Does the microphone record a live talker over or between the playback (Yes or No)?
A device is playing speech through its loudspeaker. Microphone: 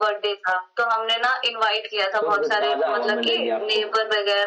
Yes